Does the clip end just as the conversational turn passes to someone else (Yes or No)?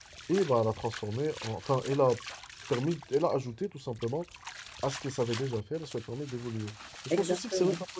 No